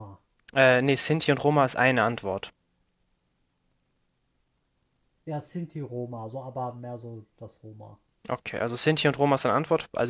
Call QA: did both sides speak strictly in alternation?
Yes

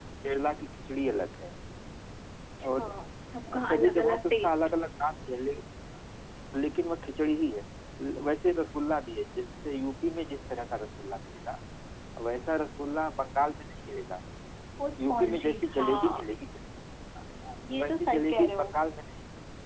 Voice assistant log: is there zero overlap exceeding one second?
No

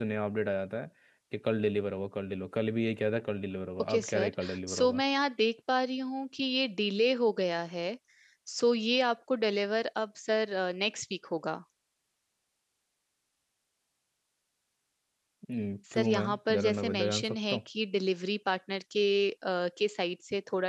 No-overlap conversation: No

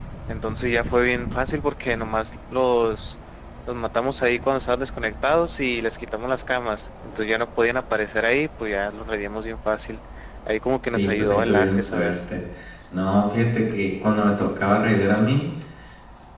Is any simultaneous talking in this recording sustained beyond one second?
Yes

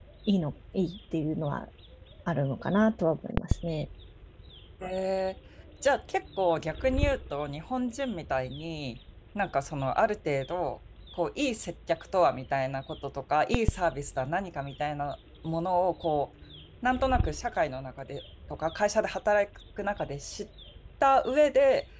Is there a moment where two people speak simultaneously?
No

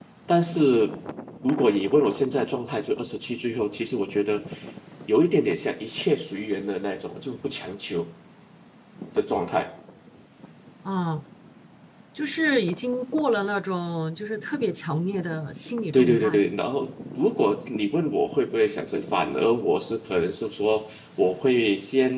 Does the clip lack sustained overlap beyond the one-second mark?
Yes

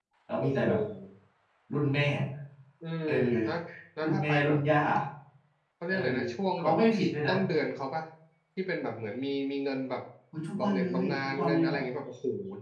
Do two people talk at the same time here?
Yes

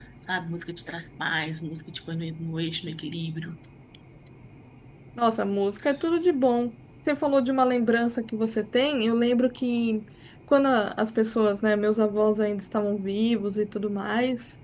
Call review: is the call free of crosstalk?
Yes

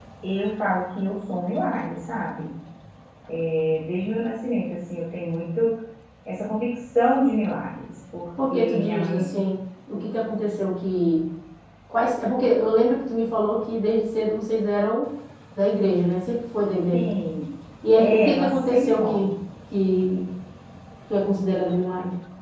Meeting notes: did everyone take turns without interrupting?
No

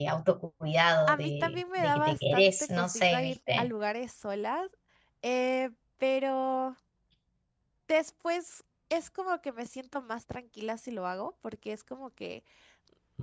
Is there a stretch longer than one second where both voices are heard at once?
Yes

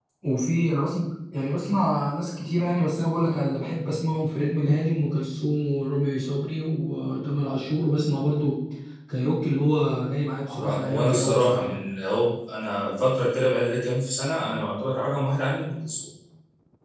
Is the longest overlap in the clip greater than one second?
Yes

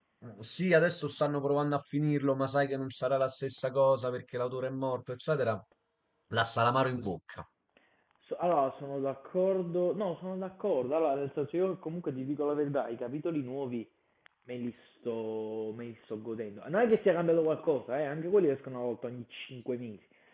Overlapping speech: No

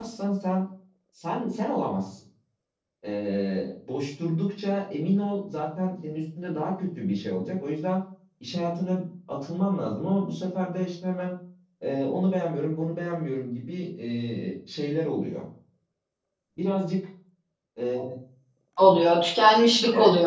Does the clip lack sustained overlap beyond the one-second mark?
Yes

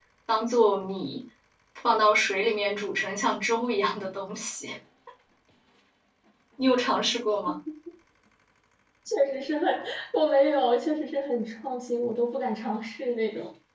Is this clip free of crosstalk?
Yes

